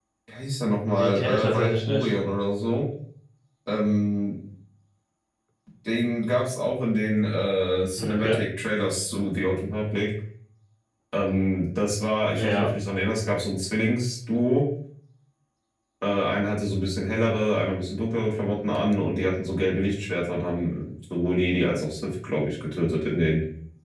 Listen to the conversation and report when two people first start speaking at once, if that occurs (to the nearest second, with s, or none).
1 s